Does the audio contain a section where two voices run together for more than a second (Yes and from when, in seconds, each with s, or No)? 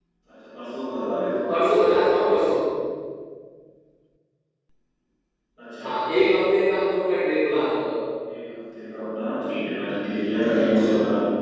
No